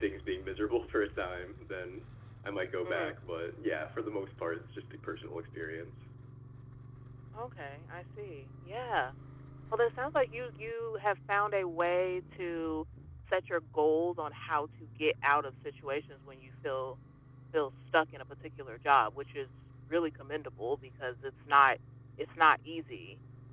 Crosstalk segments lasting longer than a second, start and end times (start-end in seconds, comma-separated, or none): none